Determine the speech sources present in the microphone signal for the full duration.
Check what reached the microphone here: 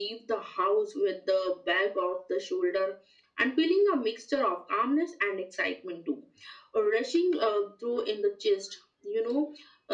echo only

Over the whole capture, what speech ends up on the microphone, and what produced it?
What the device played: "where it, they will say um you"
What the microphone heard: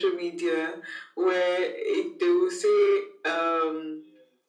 echo only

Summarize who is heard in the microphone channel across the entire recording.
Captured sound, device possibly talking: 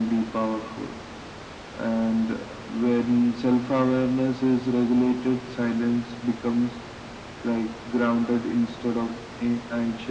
echo only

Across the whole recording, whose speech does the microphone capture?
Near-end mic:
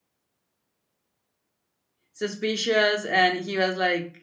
user only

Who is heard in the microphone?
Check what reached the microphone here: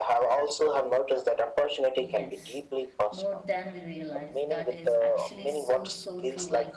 both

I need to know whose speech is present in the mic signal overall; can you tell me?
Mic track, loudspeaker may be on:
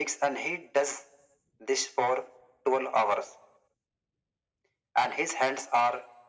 echo only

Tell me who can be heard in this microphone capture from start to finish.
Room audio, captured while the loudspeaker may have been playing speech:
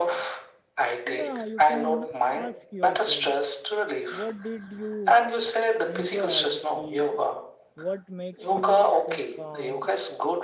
both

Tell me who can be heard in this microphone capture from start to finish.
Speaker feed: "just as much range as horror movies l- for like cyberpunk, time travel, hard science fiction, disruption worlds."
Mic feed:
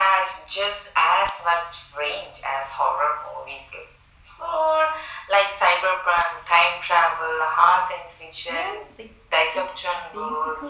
both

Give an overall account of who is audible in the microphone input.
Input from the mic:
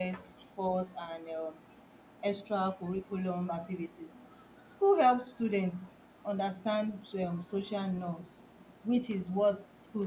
user only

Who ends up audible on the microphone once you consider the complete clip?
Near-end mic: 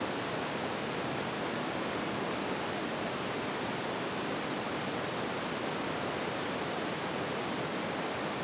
neither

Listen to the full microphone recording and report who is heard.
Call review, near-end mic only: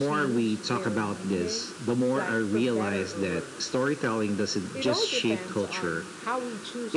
both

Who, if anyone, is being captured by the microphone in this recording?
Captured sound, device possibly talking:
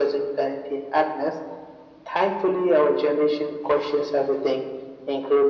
echo only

